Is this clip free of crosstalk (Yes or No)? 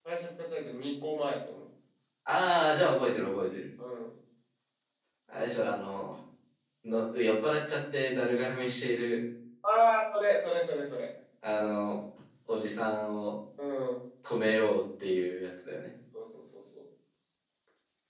Yes